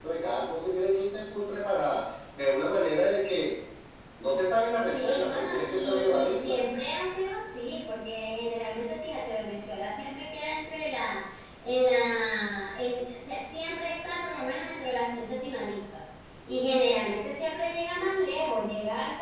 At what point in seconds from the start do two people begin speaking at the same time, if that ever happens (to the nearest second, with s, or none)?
5 s